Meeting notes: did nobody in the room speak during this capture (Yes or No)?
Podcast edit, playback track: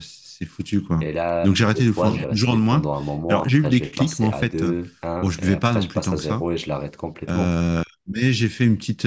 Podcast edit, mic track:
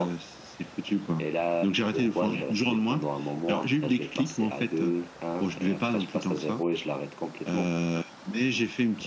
Yes